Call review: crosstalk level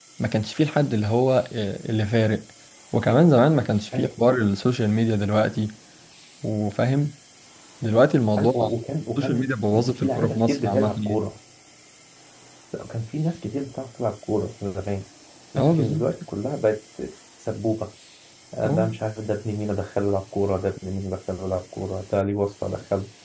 present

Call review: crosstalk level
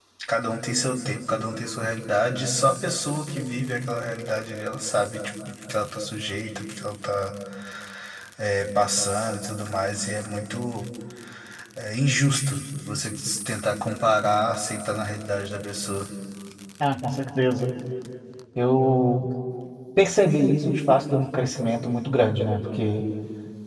none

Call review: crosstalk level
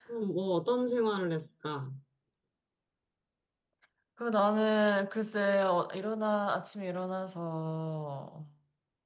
none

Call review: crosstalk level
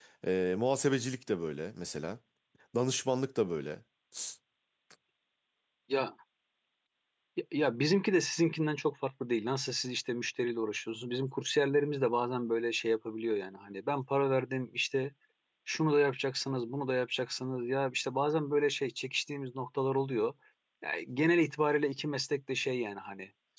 none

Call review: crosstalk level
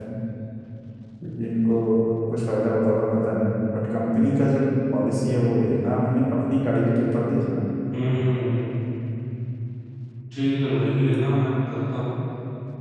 none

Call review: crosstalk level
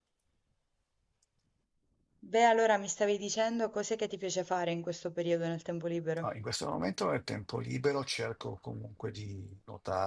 none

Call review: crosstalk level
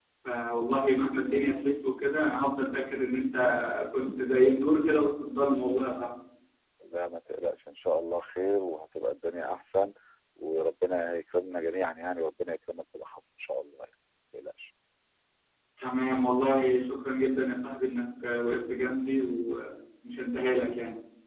none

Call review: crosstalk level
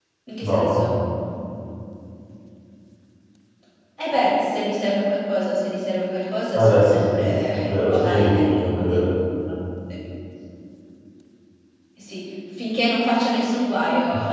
present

